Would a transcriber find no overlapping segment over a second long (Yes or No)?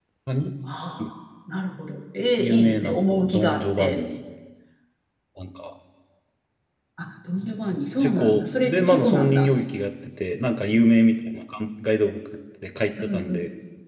No